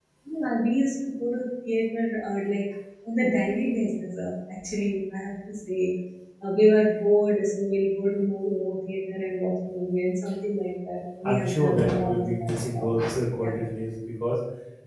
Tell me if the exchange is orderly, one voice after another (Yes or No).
No